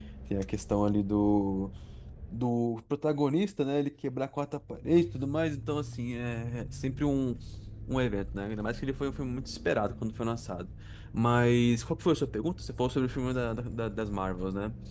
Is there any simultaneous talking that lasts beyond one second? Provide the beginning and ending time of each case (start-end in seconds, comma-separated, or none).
none